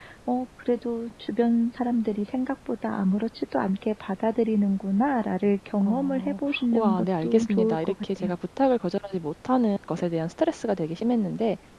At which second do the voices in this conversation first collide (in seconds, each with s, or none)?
5.8 s